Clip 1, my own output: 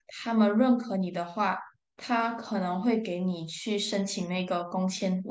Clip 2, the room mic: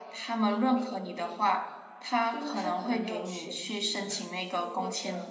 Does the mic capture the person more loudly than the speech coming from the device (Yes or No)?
No